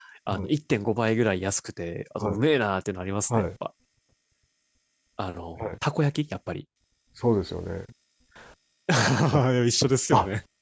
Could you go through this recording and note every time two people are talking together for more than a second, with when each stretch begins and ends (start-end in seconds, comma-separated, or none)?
none